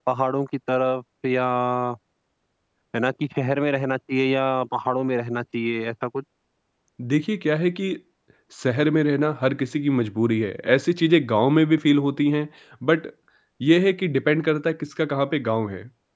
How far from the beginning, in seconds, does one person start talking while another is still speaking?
none

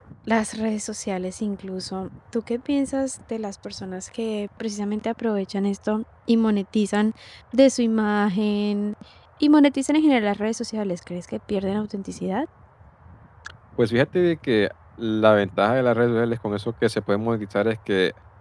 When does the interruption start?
none

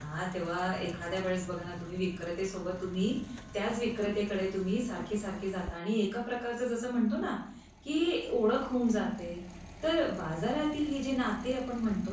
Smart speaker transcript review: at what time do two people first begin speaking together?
none

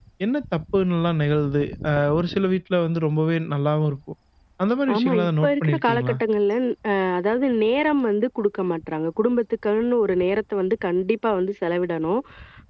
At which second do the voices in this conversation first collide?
4.9 s

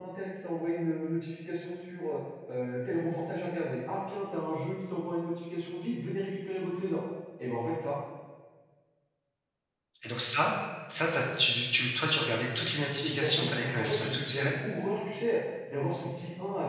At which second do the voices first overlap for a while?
13.0 s

